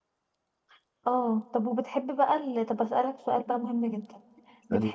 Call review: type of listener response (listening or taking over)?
listening